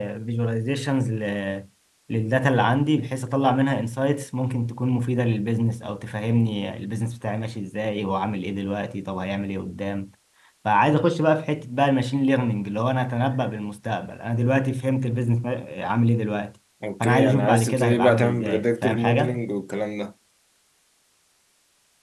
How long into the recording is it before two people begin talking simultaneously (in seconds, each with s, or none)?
17.0 s